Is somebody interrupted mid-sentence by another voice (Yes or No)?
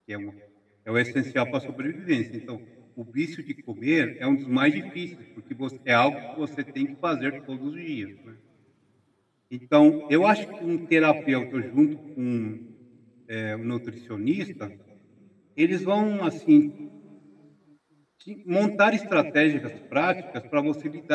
No